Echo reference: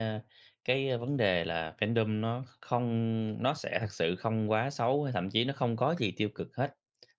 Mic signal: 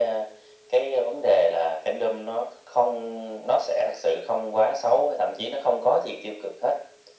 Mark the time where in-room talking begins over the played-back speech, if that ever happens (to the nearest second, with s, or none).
none